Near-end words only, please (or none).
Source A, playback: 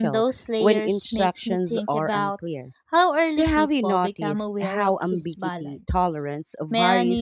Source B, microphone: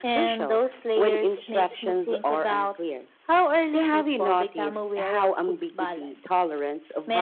none